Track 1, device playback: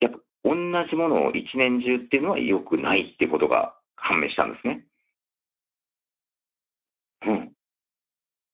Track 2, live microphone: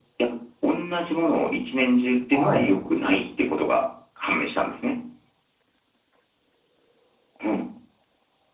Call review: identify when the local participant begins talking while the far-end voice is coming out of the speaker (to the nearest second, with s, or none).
2 s